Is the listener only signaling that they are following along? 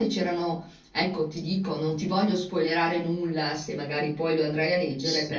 No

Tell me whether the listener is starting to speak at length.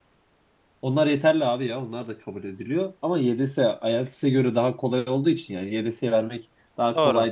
No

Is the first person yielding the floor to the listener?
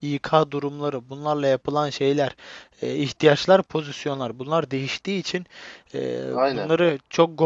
No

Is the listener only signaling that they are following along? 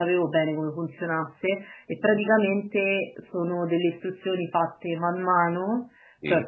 Yes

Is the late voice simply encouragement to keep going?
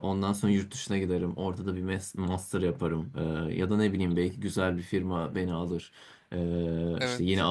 Yes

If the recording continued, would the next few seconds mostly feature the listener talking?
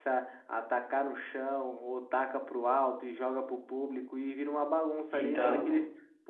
No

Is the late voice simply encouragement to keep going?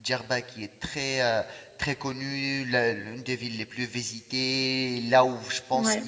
Yes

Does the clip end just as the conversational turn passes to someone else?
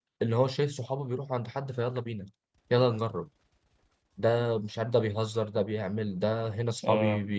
No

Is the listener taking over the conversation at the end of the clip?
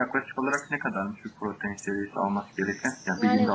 No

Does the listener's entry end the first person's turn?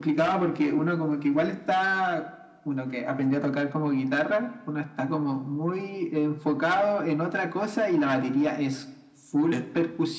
No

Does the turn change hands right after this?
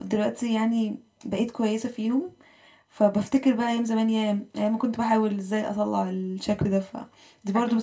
Yes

